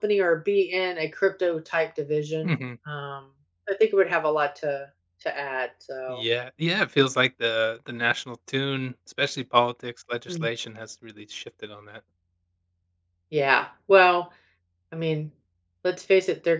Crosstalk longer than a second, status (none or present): none